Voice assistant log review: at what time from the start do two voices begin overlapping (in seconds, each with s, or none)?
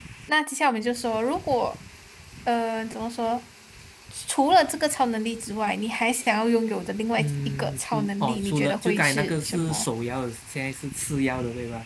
7.2 s